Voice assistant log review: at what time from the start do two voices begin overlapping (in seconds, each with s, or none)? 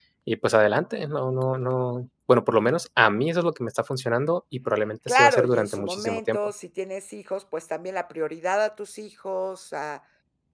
5.1 s